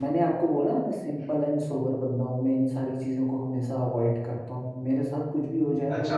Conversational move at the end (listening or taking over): taking over